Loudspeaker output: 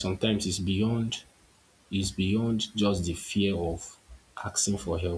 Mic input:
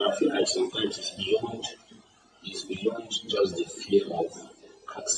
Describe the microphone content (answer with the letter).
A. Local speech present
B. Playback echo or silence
B